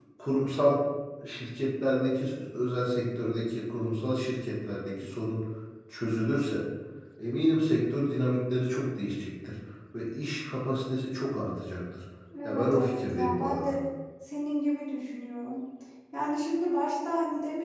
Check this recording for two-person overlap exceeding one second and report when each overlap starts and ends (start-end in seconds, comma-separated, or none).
12.4-13.7